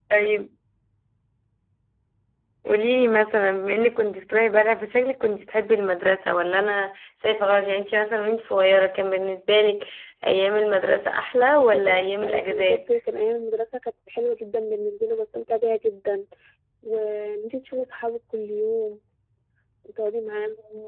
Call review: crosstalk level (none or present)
present